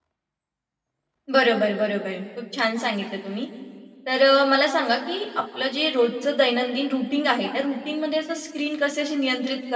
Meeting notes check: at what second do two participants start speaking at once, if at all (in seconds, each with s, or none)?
none